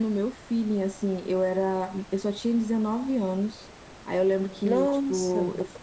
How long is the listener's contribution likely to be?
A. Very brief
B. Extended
A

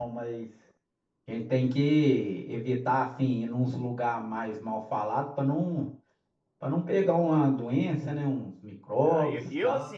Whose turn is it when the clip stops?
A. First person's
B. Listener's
B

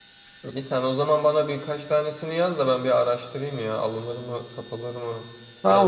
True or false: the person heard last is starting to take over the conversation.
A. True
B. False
A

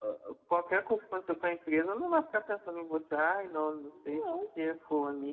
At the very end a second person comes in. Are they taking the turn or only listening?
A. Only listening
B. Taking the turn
A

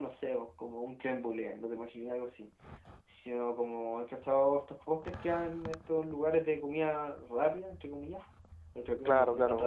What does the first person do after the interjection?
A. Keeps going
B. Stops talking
B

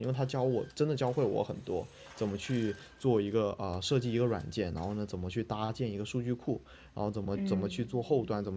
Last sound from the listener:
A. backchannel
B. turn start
A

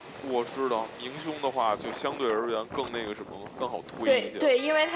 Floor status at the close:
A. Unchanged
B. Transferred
B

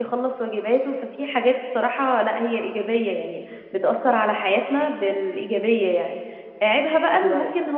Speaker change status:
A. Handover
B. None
B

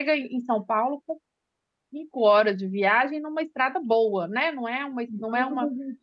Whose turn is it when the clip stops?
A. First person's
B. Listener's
B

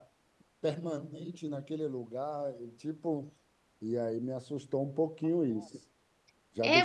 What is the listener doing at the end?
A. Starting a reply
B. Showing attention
A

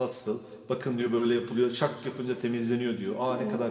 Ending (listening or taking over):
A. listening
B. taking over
A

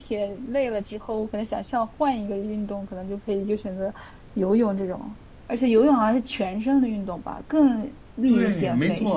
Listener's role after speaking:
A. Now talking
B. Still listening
A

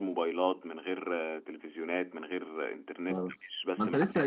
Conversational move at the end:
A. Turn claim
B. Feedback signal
A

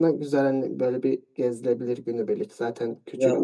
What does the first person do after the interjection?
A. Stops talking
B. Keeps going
A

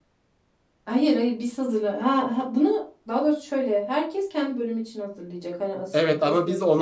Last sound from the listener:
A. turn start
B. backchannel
A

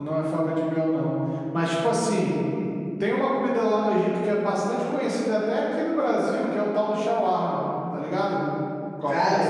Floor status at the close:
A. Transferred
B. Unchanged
A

